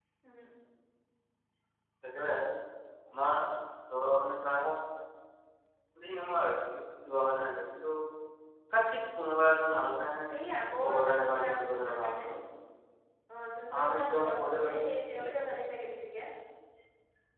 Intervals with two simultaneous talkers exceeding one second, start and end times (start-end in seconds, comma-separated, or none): 10.9-12.2, 13.8-15.5